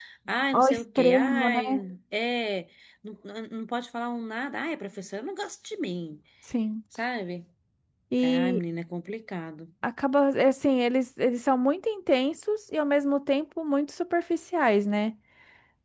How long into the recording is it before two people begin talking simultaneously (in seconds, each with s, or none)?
0.5 s